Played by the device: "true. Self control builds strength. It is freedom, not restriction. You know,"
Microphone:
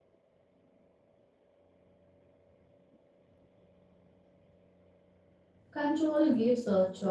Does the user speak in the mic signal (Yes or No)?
Yes